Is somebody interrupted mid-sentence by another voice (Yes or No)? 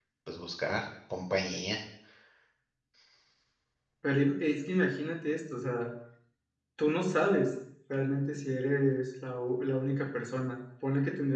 No